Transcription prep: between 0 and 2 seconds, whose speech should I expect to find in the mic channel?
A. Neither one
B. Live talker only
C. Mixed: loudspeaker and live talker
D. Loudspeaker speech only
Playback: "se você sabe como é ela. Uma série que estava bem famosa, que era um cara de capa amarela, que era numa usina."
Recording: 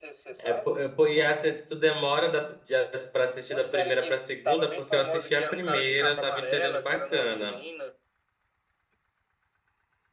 C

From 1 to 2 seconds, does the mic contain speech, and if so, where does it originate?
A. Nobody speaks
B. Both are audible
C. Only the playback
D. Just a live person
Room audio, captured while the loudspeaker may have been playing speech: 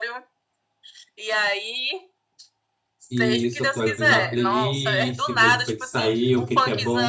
C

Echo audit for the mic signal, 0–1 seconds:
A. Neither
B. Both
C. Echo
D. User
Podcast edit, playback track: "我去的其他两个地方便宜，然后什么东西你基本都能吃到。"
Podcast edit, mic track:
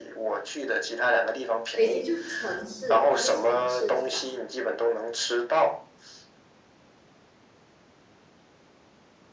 C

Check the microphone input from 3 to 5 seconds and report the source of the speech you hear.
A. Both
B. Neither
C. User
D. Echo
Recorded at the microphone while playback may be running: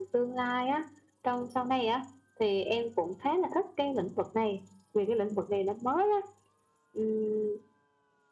D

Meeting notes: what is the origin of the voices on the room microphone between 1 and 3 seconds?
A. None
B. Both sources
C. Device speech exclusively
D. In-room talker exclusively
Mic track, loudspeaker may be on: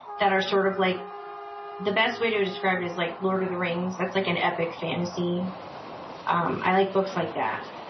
D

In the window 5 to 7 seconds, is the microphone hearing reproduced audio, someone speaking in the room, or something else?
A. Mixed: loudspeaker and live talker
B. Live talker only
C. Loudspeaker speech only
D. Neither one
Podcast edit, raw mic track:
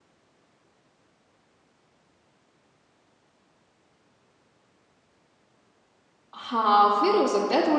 B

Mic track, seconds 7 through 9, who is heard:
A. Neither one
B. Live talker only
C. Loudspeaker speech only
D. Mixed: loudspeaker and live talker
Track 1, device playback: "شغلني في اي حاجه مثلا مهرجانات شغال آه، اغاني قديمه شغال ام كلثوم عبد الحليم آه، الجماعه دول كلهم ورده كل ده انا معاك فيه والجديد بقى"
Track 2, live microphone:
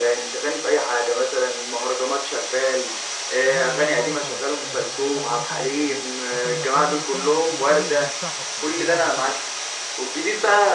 D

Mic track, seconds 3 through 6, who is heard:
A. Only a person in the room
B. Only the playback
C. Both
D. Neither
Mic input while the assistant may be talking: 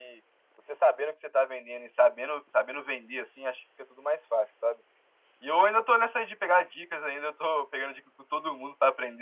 B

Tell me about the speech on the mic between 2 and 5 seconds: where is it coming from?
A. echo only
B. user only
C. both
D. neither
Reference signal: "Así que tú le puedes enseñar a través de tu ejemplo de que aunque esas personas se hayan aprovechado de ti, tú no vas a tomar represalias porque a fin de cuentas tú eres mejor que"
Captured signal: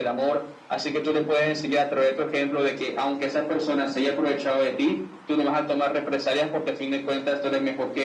A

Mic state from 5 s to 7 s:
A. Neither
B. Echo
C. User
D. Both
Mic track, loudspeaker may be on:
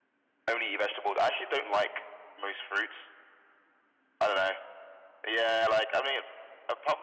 B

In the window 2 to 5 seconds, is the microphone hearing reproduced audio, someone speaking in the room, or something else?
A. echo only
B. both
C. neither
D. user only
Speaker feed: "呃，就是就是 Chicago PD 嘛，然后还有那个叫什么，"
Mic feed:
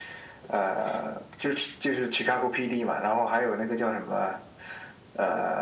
A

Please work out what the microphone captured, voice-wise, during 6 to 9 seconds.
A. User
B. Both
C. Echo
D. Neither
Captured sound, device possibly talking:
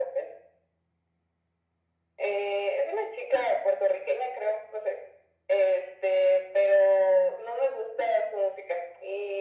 C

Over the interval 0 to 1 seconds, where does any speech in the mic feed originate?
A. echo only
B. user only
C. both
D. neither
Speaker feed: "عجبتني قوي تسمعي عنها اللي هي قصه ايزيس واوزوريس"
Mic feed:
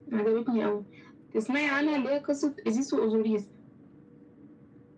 A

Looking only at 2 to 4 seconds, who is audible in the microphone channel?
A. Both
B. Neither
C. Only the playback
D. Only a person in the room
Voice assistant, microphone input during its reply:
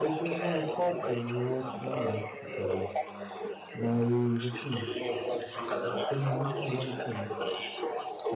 A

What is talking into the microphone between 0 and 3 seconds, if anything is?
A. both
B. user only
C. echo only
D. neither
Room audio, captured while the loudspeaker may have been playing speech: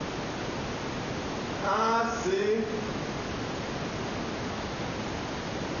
B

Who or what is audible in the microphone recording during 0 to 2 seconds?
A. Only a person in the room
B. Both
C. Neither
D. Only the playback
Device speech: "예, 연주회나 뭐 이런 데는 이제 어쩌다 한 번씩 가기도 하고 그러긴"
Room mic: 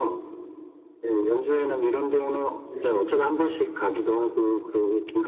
D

